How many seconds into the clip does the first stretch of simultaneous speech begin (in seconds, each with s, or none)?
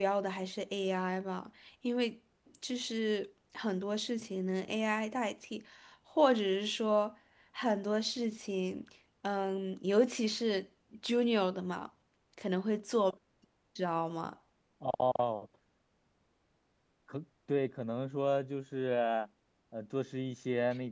none